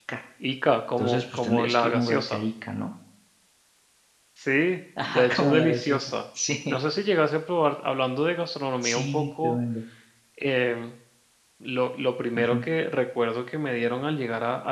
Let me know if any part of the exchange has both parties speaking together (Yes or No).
Yes